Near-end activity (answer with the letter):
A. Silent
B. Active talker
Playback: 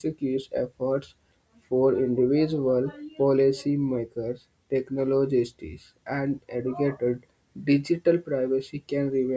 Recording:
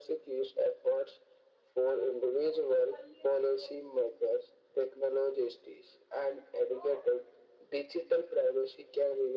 A